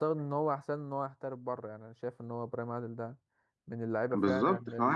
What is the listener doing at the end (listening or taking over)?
taking over